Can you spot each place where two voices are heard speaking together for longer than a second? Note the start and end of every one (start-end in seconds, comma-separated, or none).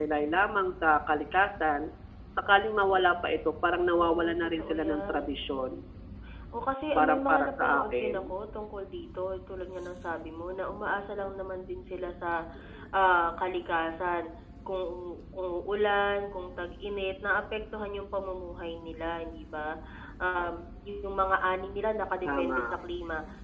4.0-5.3, 7.0-8.3